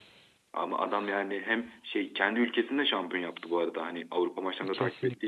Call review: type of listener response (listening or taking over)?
taking over